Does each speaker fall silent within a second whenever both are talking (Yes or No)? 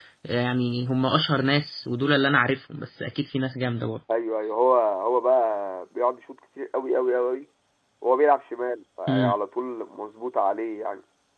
Yes